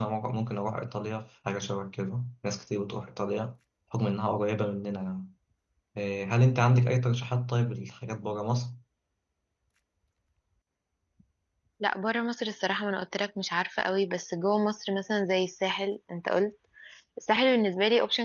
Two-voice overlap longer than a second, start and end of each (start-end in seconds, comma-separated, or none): none